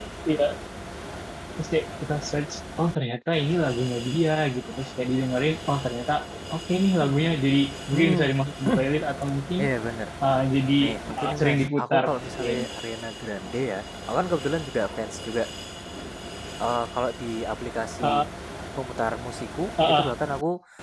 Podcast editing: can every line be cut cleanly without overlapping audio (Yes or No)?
No